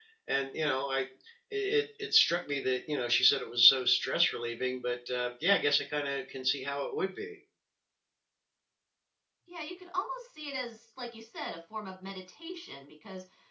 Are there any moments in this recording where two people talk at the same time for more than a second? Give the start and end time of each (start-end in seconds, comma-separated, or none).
none